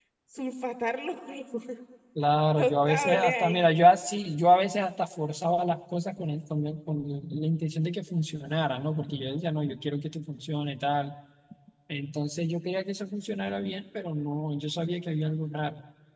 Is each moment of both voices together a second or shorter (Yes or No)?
No